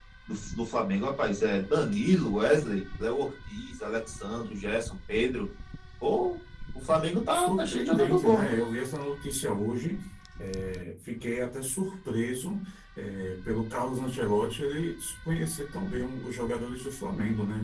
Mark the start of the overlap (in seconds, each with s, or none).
7.3 s